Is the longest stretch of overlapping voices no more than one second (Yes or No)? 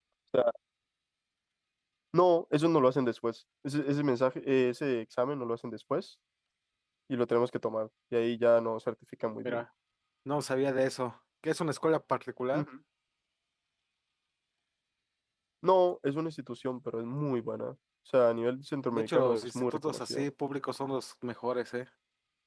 No